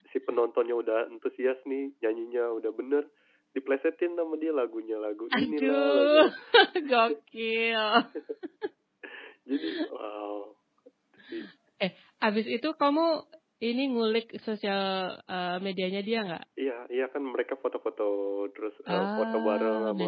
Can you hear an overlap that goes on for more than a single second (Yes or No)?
Yes